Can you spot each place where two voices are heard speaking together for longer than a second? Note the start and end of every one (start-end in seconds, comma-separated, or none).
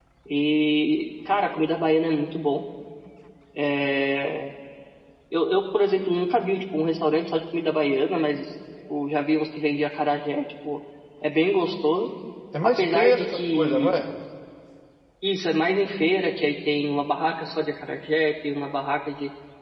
12.6-14.0